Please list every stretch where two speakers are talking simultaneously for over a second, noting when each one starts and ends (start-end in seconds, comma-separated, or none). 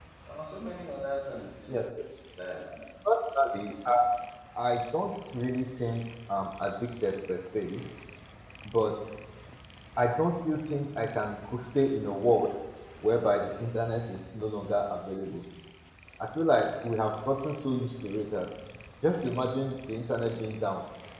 none